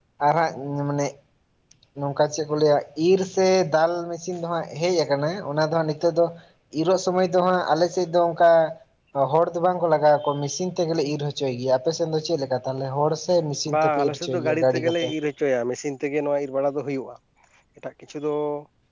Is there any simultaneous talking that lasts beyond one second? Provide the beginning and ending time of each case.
13.7-15.1

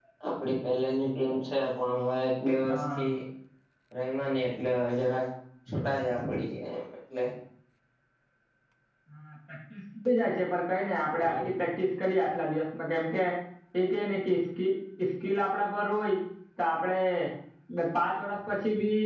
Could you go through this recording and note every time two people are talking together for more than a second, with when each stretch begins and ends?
none

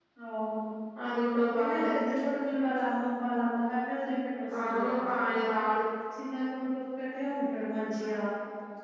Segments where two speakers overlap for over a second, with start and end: none

